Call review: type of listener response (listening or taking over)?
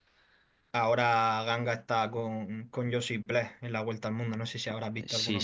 taking over